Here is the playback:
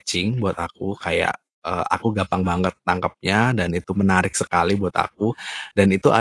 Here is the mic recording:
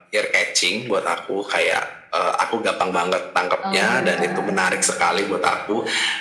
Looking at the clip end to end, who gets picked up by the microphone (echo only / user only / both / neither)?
both